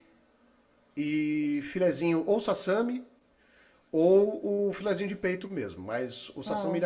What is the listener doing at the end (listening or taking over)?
listening